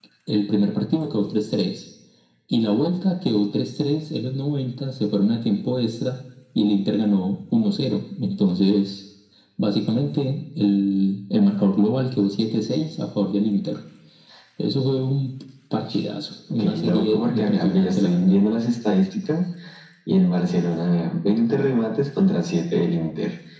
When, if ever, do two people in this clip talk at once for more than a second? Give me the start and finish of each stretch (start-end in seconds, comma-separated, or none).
16.6-18.4